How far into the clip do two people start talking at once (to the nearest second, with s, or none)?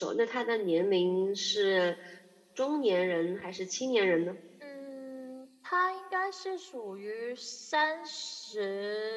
none